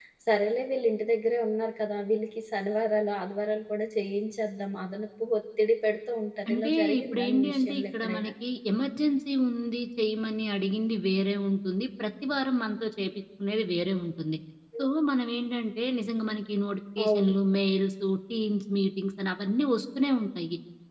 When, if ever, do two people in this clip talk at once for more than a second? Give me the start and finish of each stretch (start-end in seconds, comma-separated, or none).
6.5-8.3